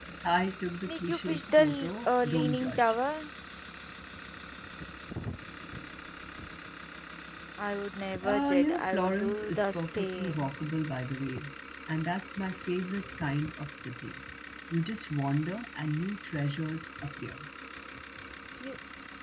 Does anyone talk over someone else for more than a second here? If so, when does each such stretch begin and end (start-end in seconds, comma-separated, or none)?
0.9-3.0, 8.2-10.5